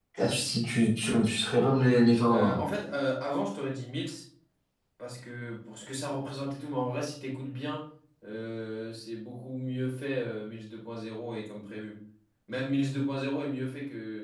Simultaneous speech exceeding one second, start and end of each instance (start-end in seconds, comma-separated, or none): none